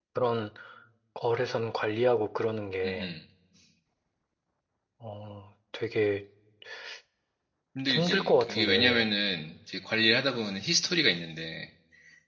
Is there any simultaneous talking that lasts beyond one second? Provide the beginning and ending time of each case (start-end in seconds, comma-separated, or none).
7.9-9.1